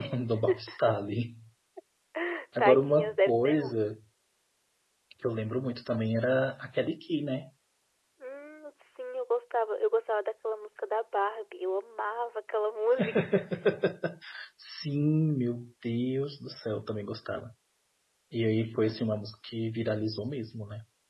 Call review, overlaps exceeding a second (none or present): present